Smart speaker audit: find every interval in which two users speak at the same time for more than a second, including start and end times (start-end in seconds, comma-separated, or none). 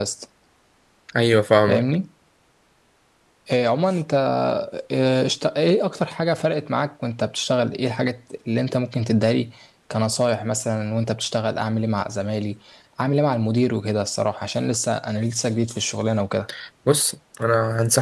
none